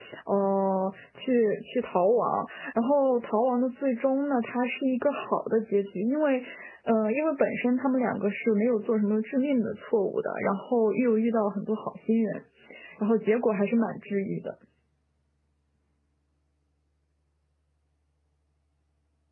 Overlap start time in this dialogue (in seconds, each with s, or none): none